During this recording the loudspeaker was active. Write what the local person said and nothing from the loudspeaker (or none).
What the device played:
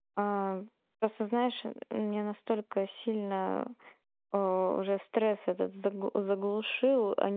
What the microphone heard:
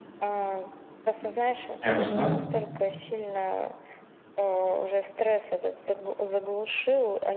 ясно.